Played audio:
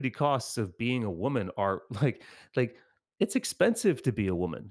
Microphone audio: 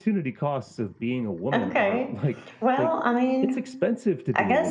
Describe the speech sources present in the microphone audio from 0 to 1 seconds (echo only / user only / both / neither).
echo only